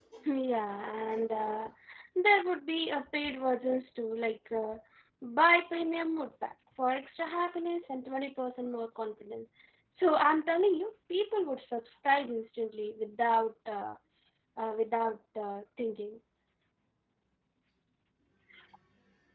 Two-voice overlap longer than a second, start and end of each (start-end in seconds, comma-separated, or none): none